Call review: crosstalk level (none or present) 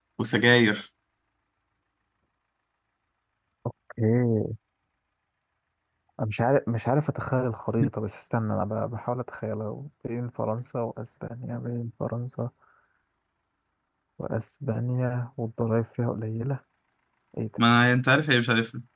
none